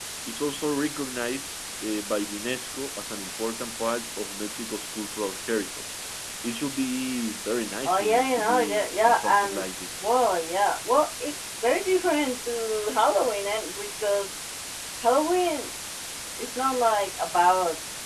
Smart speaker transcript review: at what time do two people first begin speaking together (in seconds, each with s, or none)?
7.8 s